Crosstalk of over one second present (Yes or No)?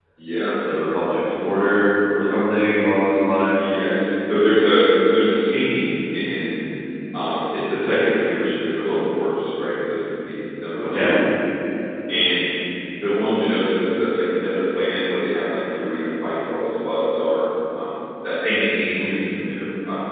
No